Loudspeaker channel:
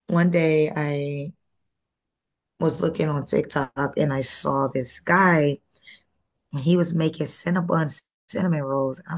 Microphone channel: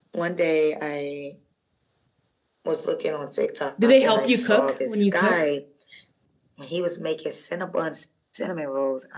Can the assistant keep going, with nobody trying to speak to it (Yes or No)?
No